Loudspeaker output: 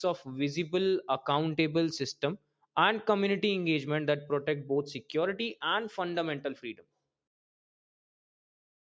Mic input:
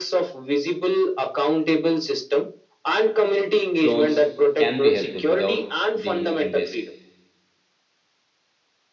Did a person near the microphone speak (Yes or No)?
Yes